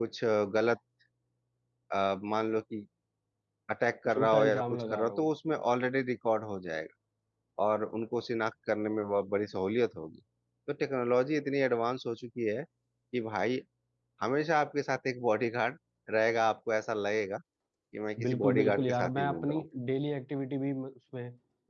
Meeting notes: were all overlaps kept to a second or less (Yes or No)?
No